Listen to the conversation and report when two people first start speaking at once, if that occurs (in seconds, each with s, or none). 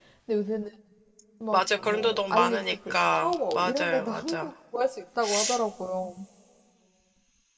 1.5 s